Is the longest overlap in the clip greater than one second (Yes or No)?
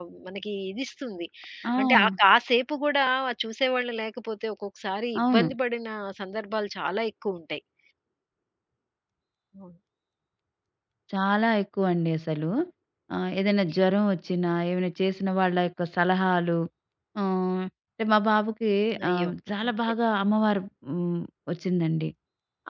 No